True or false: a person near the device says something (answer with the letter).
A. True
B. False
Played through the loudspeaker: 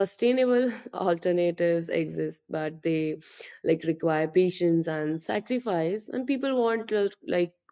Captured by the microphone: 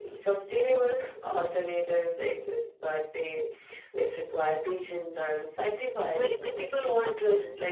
A